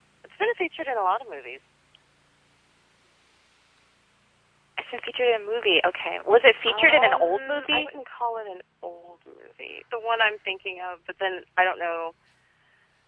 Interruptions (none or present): present